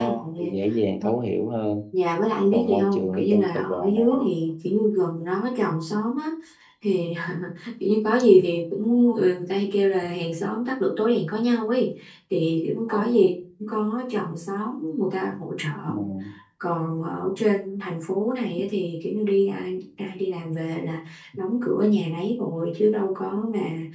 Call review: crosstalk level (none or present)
present